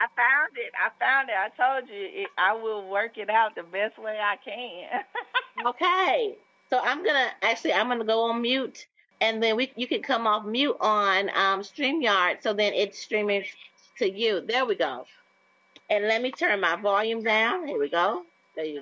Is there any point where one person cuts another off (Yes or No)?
No